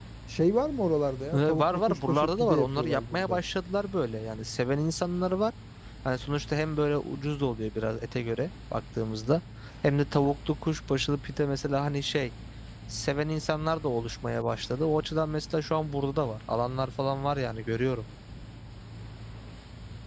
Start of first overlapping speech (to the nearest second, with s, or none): 1 s